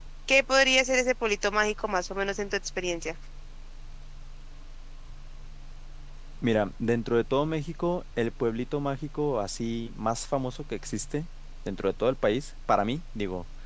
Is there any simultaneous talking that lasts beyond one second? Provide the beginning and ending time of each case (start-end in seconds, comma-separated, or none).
none